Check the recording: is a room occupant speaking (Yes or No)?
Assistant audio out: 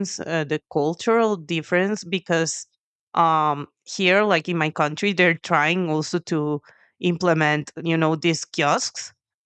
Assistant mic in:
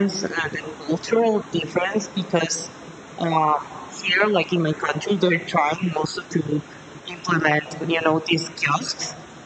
No